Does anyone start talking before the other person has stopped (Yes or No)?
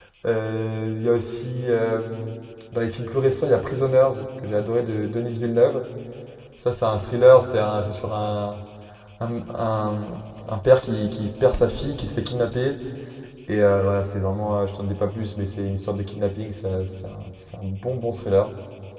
No